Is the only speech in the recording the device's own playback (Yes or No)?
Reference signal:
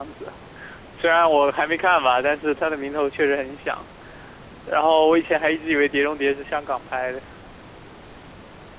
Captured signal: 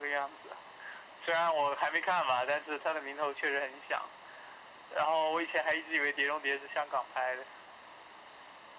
Yes